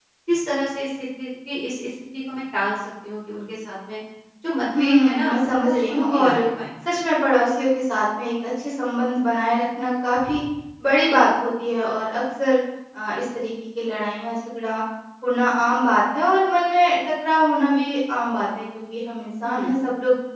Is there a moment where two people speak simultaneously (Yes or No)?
Yes